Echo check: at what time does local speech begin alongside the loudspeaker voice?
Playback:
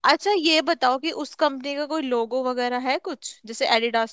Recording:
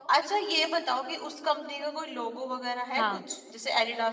3 s

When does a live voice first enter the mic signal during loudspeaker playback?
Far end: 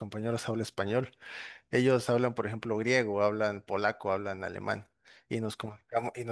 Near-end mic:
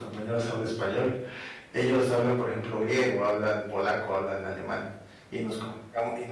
none

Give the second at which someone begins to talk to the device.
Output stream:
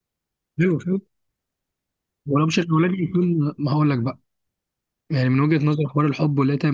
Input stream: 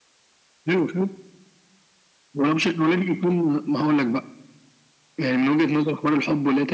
none

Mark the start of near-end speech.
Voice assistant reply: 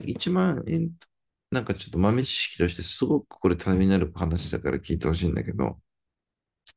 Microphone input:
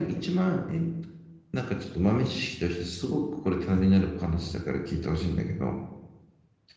none

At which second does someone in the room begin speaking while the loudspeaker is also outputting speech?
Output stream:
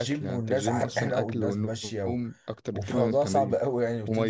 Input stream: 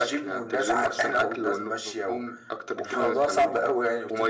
none

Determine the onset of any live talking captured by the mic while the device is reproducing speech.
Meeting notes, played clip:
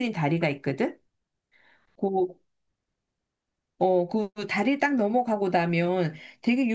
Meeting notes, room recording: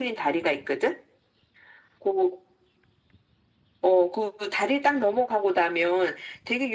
none

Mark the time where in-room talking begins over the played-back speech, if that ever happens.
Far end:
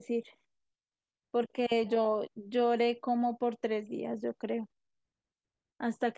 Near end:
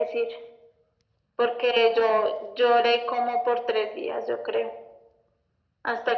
none

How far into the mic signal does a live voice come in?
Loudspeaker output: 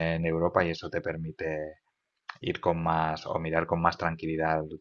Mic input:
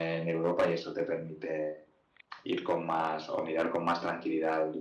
none

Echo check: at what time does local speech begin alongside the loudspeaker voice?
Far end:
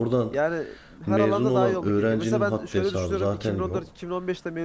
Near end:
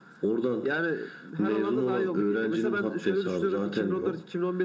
none

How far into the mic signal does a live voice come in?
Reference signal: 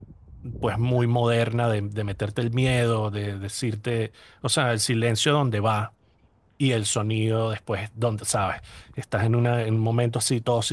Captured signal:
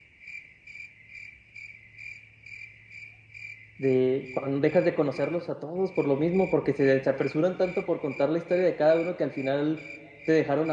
4 s

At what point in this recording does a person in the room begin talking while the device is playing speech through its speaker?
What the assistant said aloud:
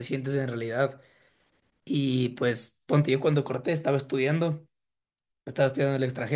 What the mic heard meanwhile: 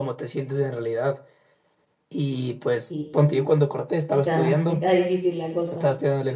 3 s

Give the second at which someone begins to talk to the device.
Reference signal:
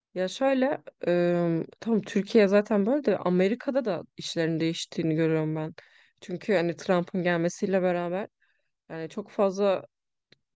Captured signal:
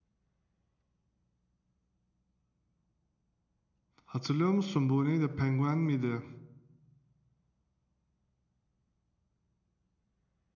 4 s

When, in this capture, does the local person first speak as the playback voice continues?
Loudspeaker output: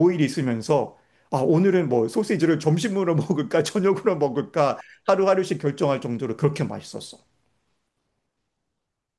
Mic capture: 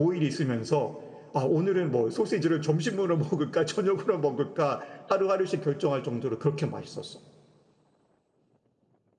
none

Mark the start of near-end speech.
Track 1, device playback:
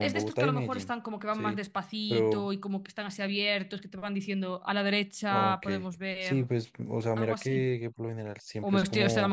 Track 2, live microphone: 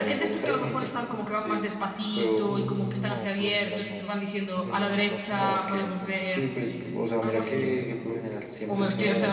2 s

